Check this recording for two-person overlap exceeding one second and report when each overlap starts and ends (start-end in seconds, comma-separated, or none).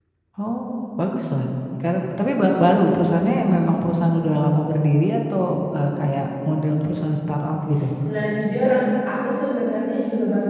none